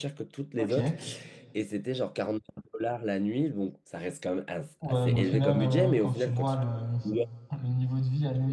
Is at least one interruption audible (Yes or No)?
Yes